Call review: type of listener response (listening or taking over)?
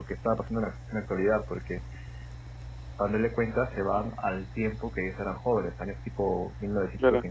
taking over